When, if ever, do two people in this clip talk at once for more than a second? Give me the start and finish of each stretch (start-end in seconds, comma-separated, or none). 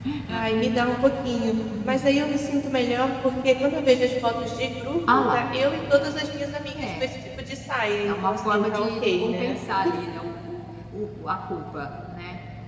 8.0-9.6